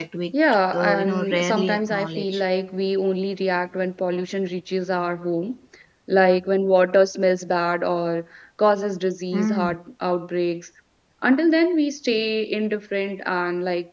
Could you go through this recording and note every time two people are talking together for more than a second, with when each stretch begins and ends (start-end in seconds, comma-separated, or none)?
0.7-2.4